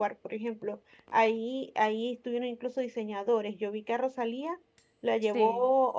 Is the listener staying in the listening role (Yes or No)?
Yes